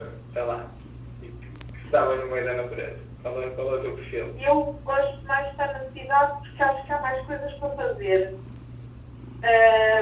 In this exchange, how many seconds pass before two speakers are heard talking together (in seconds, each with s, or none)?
none